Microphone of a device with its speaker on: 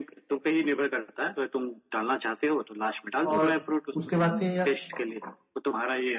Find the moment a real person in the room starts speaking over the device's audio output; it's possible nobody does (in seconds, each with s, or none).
3.3 s